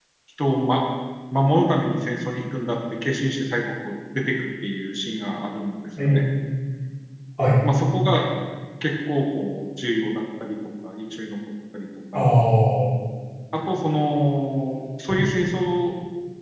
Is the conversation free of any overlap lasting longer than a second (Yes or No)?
Yes